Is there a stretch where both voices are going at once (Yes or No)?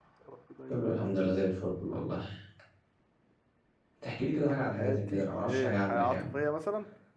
Yes